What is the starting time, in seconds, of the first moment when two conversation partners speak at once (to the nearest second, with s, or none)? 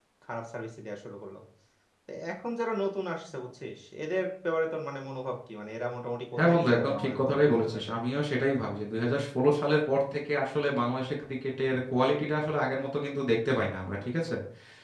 6 s